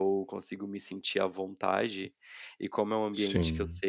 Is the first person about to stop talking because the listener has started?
No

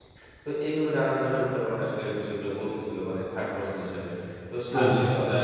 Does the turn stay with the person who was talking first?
Yes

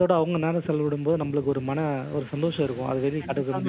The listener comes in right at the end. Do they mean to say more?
Yes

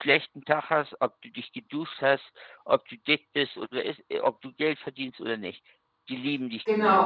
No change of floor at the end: No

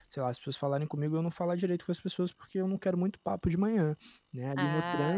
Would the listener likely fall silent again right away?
Yes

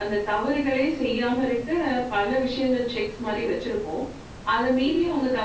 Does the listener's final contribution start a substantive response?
No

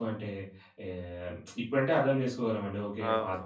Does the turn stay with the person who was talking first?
No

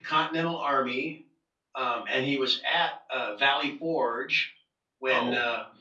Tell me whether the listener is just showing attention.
Yes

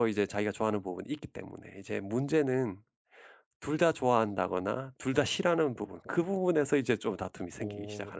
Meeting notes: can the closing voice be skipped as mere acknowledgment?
No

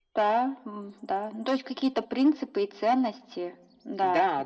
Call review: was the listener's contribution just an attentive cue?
No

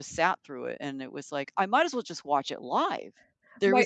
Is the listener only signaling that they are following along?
Yes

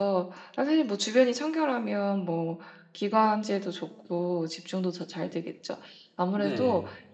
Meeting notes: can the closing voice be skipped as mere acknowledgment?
Yes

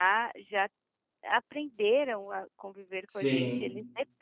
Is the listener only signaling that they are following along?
Yes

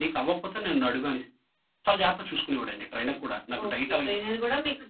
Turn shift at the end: Yes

